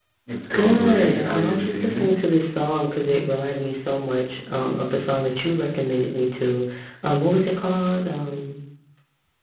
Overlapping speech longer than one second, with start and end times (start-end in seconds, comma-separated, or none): 0.5-2.1